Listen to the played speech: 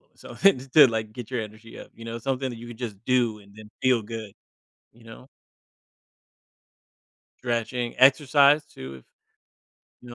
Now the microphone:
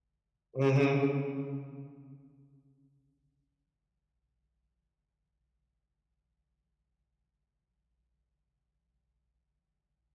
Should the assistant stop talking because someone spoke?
Yes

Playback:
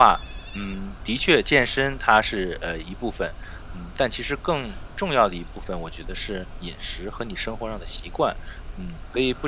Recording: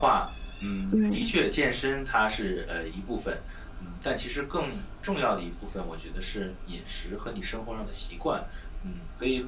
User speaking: Yes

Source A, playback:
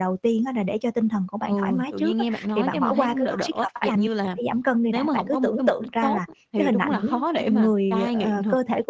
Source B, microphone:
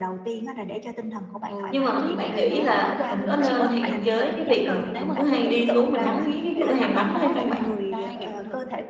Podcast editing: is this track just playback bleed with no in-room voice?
No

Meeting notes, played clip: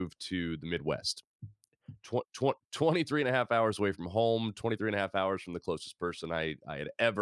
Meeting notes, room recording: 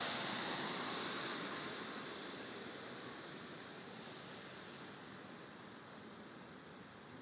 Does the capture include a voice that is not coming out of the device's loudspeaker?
No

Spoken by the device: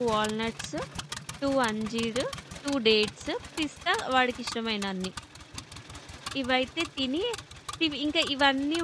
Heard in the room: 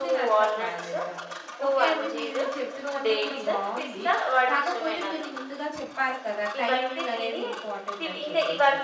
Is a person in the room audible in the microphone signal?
Yes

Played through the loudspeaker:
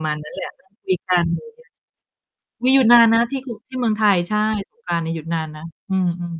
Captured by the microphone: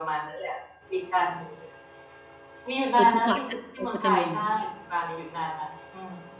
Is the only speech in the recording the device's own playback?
No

